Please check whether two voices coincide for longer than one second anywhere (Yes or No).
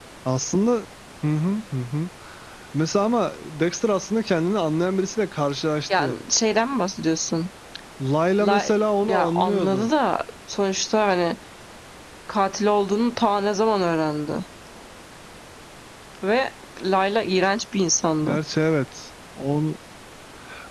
Yes